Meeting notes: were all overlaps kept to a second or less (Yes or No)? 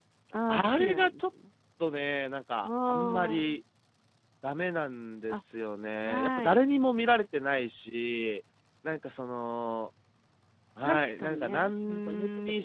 No